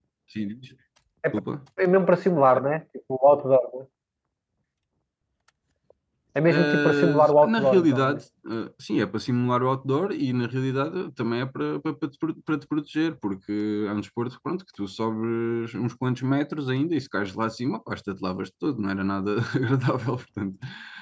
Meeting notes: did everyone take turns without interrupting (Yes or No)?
No